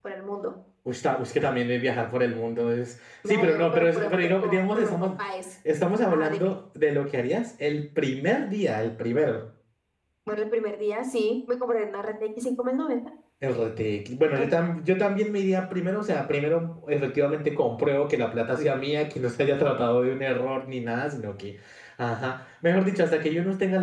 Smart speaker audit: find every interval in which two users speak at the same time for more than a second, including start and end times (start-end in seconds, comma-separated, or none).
3.3-5.1